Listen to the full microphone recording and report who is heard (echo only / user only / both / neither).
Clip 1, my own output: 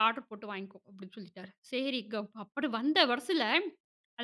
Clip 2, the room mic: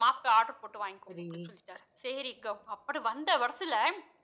both